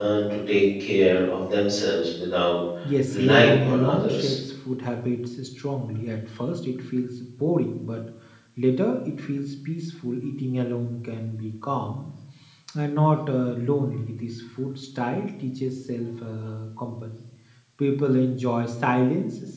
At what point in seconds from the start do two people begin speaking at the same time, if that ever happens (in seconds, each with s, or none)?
3.1 s